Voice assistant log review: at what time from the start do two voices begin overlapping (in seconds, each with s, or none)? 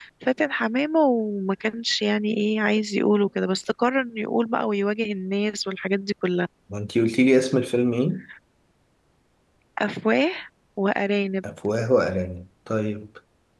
none